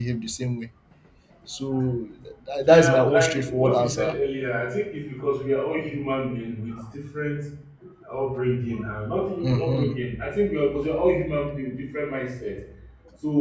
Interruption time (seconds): 3 s

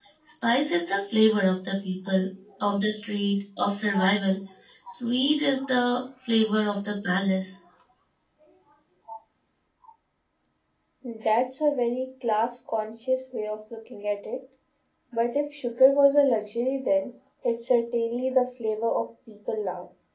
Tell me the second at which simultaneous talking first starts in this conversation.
none

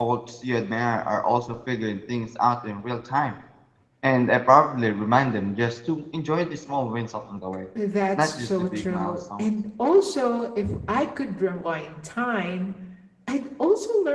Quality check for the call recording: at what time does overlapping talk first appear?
8 s

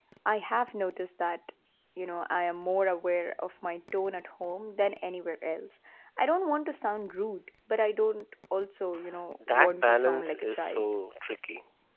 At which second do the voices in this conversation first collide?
9 s

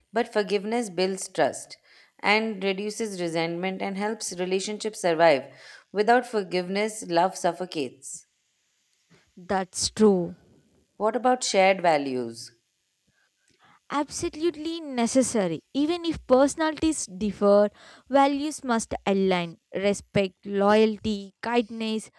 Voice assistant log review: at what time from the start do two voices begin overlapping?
none

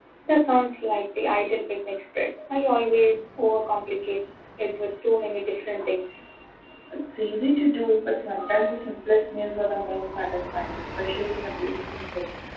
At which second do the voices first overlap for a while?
none

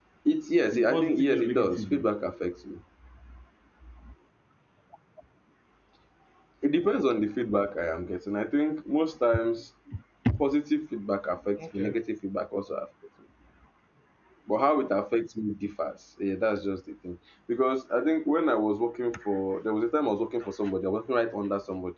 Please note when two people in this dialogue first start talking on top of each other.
1 s

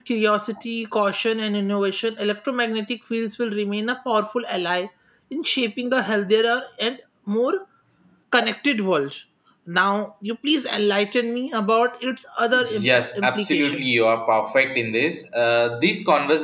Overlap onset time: 13 s

